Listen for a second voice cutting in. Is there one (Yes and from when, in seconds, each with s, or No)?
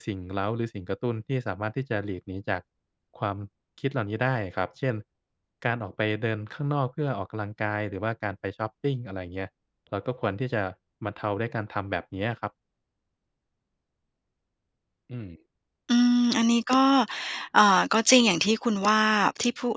No